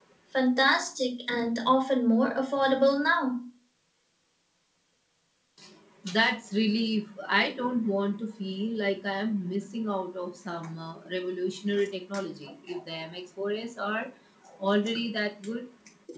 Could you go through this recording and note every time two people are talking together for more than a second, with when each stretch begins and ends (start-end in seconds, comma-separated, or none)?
none